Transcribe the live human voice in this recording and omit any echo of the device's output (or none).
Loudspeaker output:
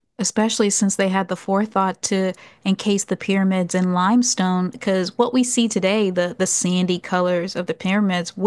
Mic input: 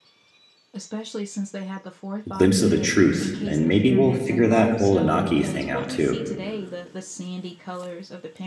a glimpse of the truth and maybe we'll figure that whole Anaki thing out too.